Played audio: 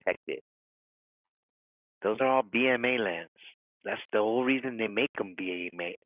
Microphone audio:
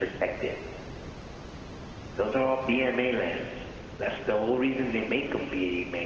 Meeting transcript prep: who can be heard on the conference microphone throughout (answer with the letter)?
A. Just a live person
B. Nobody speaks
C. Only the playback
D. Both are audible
C